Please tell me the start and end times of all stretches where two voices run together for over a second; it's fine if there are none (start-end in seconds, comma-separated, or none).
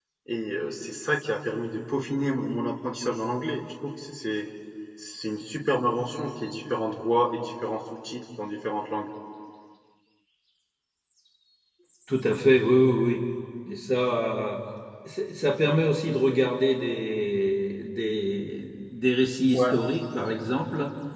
none